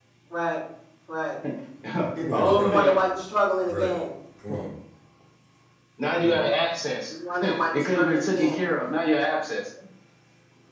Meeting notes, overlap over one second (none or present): present